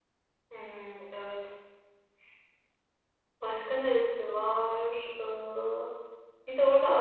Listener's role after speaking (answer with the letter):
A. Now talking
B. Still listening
B